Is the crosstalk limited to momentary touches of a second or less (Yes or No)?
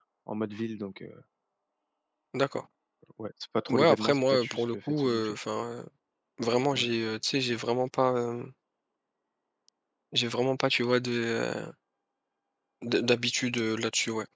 No